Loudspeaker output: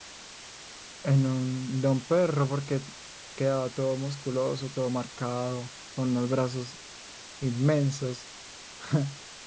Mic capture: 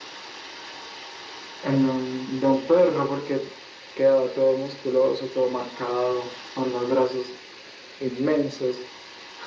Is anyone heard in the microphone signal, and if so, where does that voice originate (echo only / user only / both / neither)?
echo only